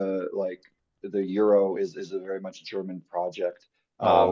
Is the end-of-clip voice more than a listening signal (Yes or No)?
No